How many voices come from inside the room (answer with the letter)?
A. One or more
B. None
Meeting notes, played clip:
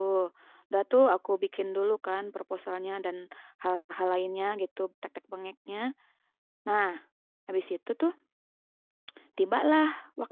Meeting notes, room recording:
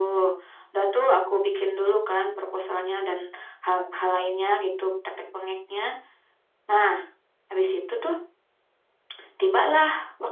B